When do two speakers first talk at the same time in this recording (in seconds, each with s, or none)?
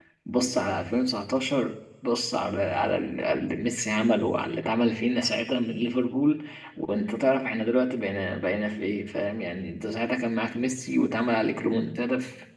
none